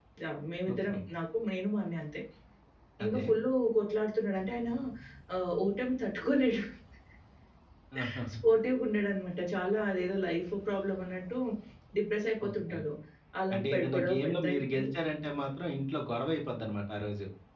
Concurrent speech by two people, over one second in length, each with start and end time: 13.5-14.9

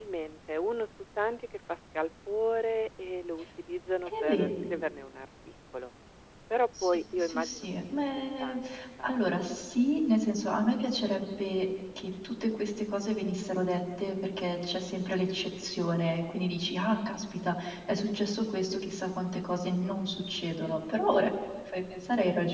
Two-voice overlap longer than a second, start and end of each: 6.8-8.6

